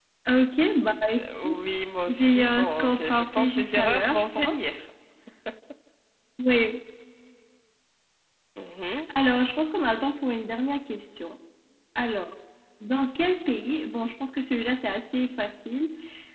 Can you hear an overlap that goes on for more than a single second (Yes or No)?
Yes